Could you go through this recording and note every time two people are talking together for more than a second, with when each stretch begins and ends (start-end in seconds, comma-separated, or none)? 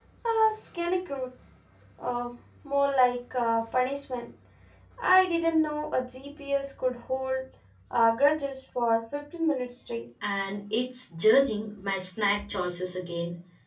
none